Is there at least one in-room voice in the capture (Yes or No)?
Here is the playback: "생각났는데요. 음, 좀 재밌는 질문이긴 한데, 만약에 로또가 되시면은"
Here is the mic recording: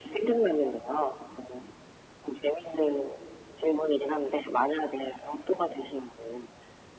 No